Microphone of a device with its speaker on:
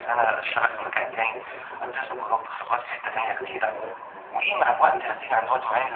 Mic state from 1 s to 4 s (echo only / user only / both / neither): both